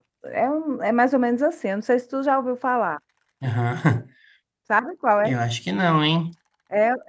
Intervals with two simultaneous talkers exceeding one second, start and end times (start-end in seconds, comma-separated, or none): none